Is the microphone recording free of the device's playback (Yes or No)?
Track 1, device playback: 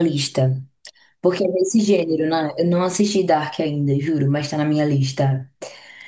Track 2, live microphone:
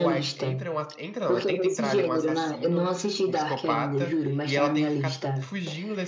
No